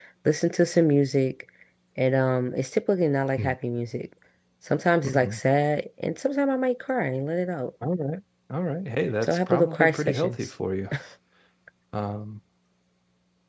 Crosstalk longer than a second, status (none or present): present